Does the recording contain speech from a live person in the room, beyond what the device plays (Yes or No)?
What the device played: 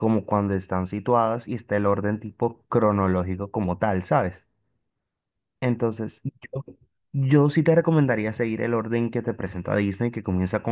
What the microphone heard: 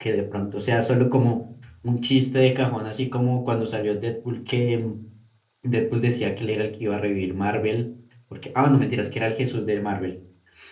Yes